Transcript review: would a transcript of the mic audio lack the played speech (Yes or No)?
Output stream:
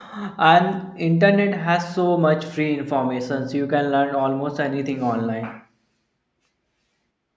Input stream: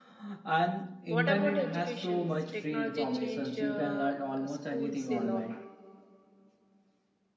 No